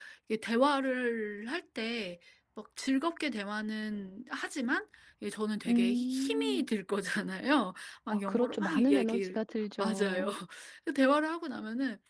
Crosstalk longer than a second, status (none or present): present